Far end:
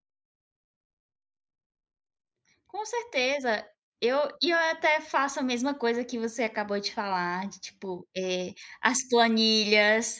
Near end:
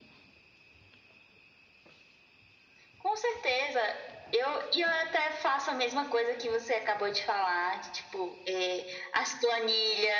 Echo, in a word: present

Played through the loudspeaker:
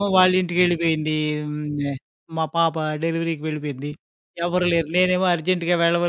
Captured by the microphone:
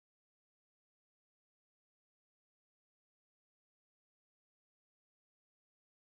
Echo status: none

